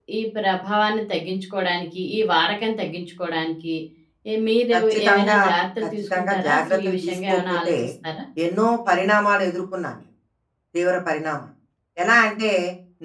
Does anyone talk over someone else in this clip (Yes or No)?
Yes